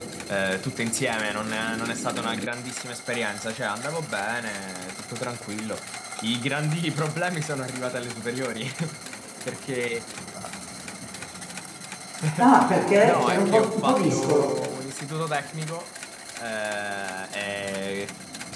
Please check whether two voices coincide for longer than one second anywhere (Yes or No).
Yes